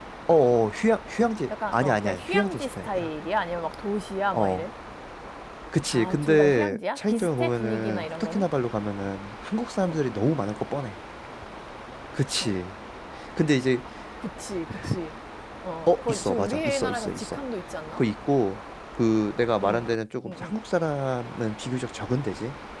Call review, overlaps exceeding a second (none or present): present